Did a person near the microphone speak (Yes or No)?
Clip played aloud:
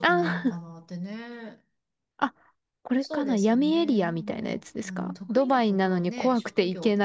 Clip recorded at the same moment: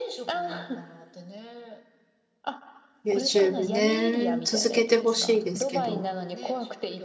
Yes